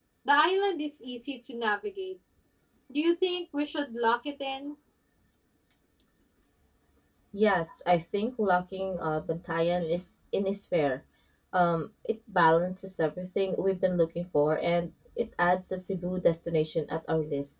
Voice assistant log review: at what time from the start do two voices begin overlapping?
none

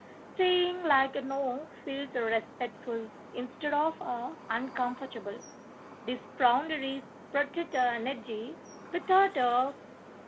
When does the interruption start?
none

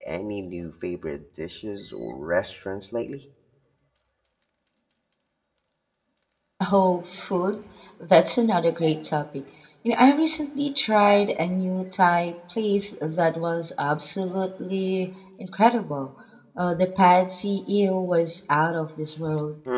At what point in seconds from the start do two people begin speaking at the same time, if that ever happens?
none

